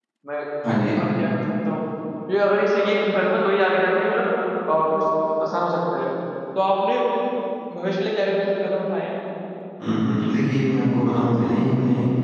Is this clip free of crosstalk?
Yes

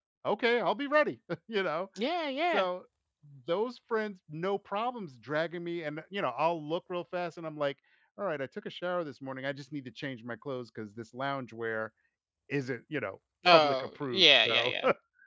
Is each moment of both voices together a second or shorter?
No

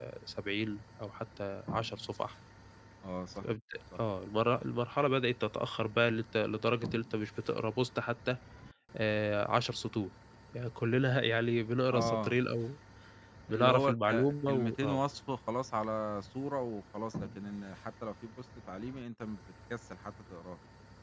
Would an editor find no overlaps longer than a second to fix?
No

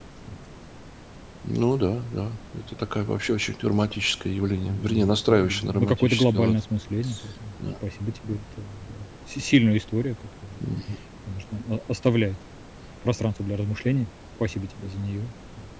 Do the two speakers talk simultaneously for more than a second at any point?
Yes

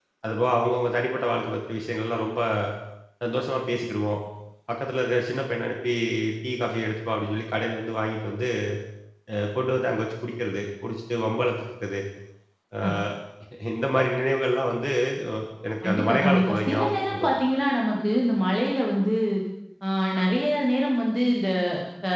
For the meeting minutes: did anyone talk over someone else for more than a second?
Yes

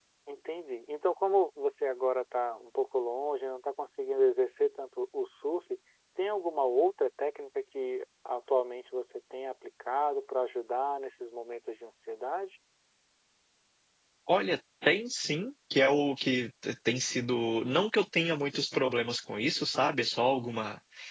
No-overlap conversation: Yes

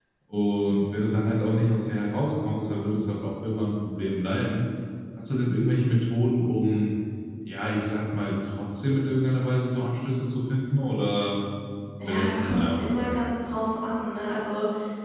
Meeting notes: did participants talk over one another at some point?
Yes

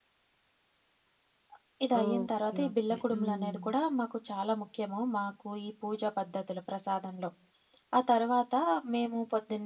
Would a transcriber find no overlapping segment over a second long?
No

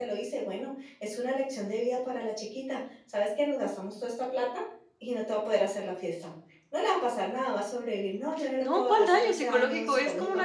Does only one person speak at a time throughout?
No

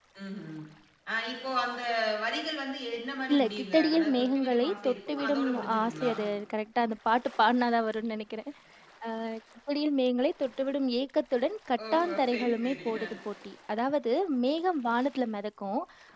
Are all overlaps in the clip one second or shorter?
No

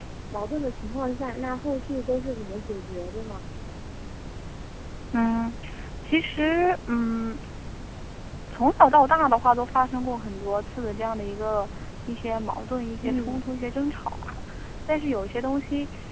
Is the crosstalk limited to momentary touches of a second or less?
Yes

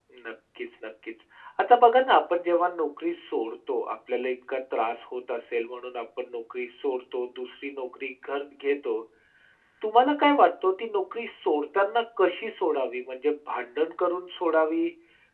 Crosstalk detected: No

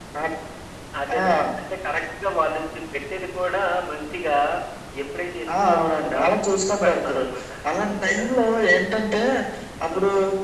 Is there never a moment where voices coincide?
No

